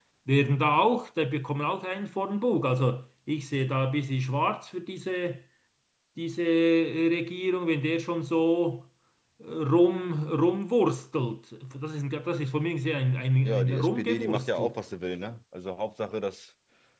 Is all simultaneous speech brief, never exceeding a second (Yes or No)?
No